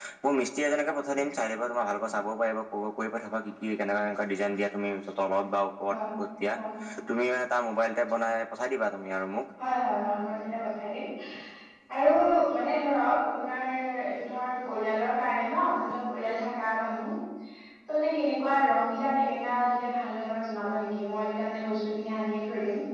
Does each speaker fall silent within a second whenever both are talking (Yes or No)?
Yes